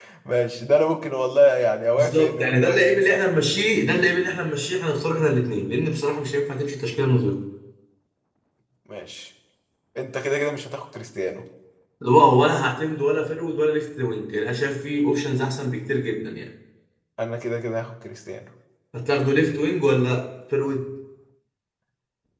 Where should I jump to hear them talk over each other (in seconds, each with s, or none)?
2.0 s